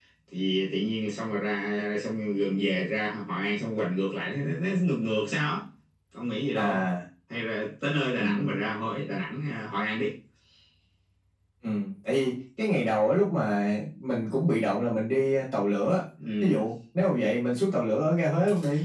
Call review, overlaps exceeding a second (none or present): none